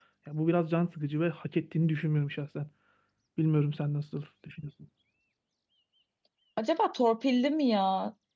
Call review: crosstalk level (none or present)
none